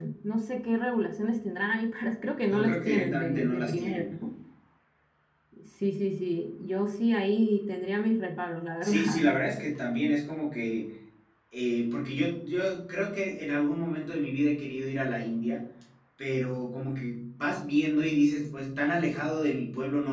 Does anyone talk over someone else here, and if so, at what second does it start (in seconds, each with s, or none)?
2.5 s